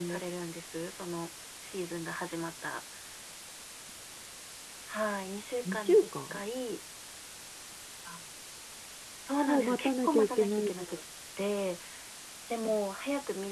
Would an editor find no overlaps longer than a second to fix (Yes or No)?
No